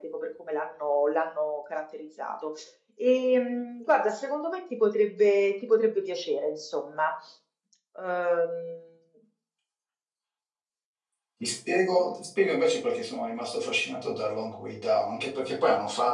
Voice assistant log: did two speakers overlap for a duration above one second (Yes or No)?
No